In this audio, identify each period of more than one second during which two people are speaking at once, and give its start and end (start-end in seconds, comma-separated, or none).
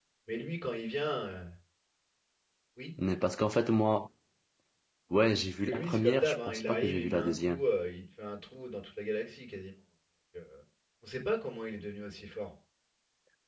5.6-7.6